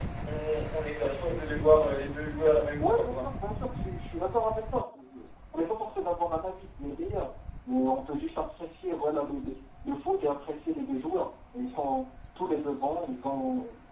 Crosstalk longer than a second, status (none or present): none